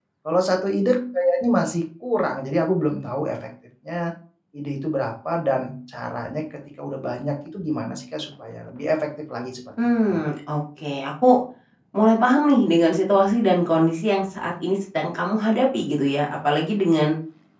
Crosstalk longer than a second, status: none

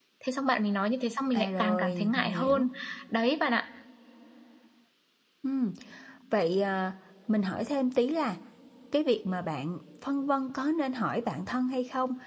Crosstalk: present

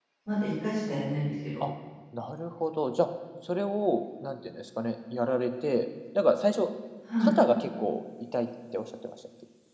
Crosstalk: none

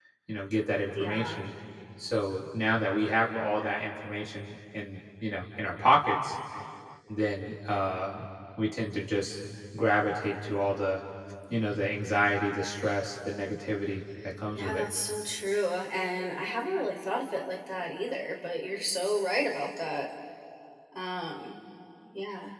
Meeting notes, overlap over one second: none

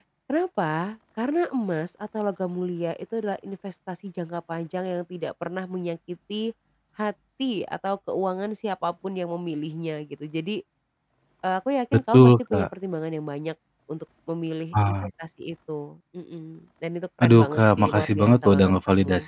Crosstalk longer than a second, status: present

